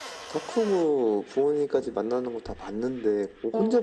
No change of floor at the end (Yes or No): Yes